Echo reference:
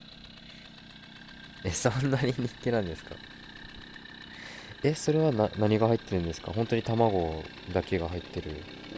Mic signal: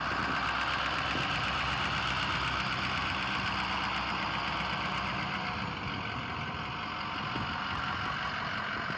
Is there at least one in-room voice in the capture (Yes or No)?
No